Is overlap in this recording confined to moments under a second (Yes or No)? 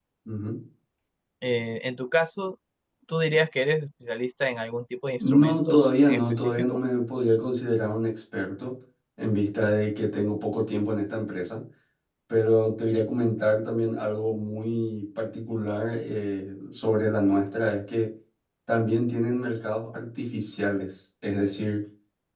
No